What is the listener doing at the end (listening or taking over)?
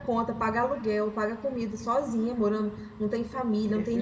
listening